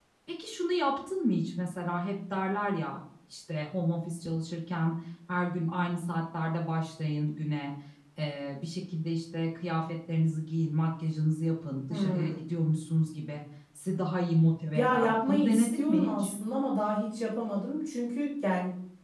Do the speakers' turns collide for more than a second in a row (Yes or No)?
Yes